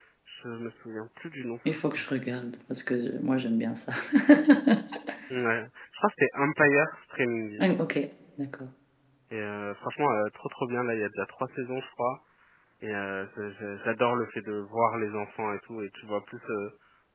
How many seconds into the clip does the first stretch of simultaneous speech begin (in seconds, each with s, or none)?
none